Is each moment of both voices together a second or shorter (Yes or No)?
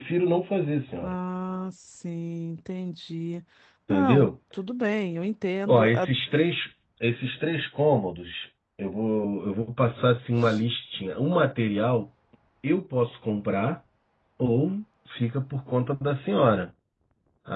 Yes